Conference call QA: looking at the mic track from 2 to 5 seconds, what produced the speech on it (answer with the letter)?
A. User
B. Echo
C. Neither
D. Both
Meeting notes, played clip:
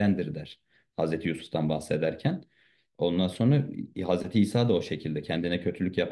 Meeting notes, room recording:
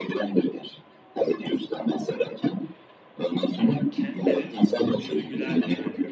D